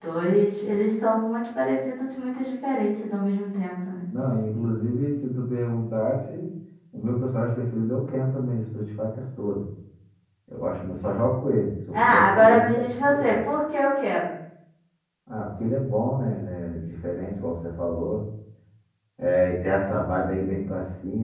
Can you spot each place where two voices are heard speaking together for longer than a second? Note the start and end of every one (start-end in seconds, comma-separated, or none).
11.9-13.4